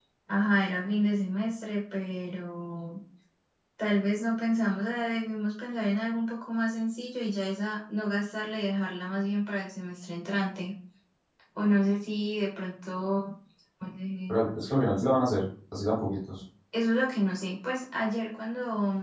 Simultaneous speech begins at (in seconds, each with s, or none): none